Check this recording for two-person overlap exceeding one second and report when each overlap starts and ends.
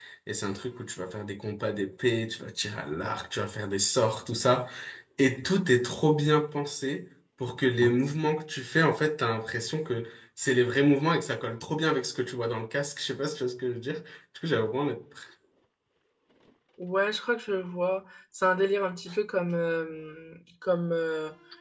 none

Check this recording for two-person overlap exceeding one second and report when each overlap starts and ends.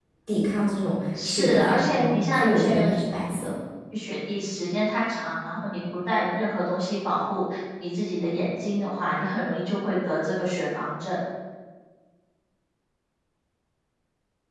1.2-2.9

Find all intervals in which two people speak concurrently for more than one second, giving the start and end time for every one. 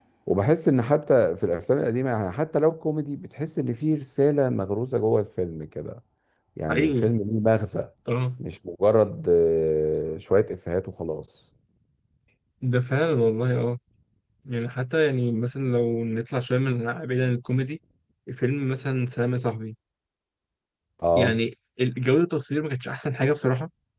none

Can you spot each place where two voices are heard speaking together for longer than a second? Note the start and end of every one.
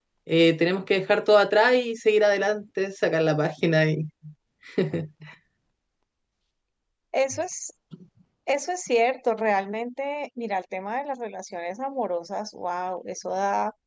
none

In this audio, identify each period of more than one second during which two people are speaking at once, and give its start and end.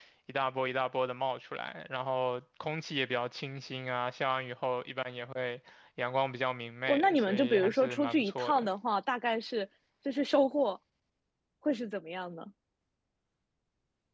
6.9-8.7

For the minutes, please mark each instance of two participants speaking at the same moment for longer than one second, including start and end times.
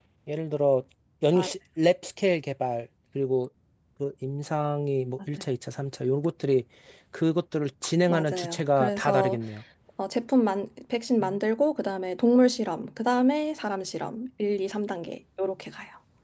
8.1-9.4

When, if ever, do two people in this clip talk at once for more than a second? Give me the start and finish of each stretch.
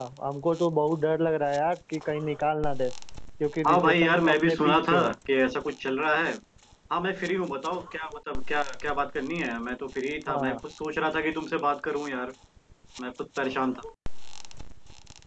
3.7-5.1

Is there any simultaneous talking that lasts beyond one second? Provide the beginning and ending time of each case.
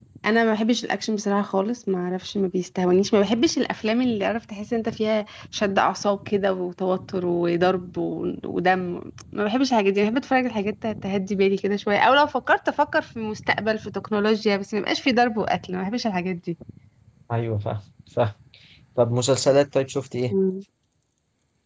none

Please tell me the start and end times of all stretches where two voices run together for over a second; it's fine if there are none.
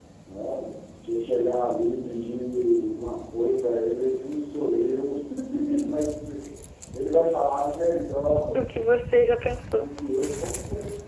none

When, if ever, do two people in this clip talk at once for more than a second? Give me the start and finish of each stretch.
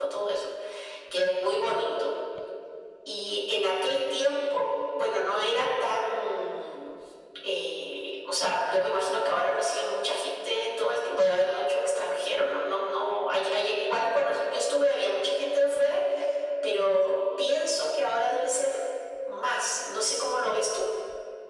none

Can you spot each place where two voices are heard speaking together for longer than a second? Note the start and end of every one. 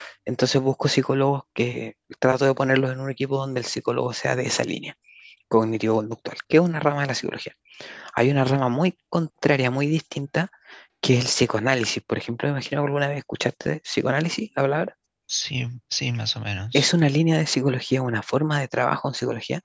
none

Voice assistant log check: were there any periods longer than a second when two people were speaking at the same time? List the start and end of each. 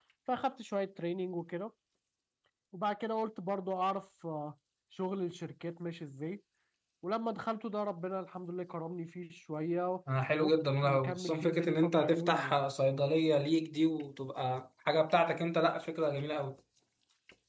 10.8-12.6

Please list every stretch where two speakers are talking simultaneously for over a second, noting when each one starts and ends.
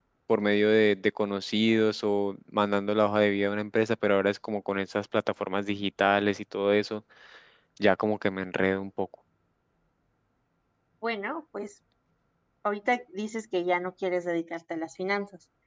none

